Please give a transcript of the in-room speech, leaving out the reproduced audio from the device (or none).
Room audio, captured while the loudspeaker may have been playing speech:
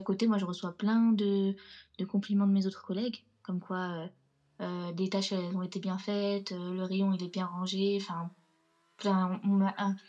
none